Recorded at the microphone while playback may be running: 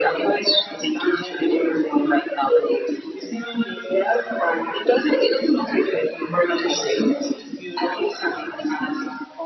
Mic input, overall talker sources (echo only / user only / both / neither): echo only